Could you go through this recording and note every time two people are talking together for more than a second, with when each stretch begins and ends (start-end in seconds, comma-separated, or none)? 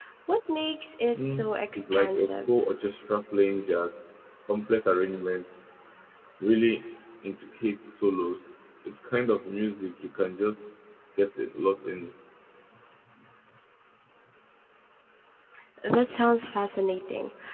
1.2-2.5